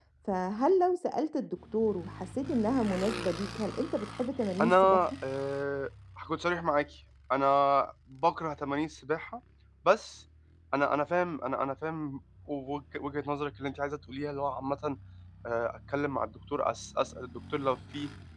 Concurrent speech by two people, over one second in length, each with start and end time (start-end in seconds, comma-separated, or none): none